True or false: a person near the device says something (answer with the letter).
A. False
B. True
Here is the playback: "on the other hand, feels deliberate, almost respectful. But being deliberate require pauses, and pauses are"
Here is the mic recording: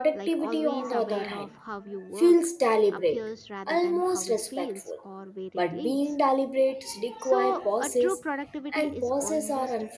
B